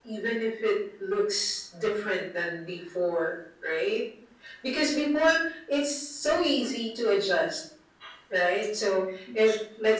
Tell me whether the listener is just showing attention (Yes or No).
Yes